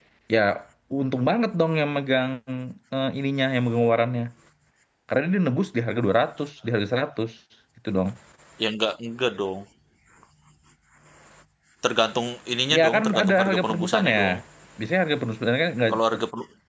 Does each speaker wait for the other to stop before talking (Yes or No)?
No